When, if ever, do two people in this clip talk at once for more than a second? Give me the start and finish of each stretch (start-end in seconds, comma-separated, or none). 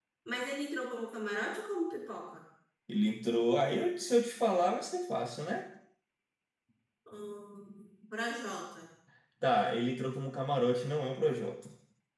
none